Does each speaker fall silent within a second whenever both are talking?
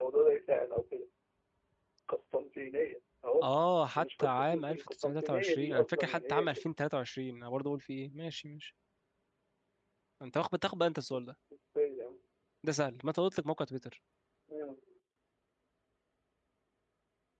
No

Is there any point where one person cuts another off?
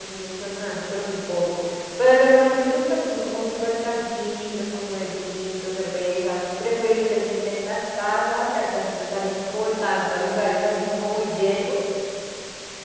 No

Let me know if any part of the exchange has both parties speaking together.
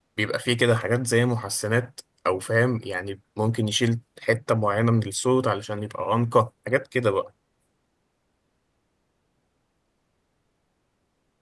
No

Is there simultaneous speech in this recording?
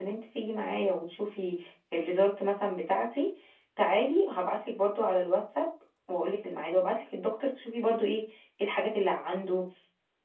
No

